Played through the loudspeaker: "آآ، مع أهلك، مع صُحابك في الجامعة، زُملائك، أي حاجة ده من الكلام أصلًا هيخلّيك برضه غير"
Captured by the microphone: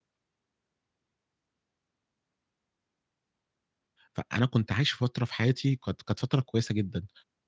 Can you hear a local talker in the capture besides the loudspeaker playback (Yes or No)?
Yes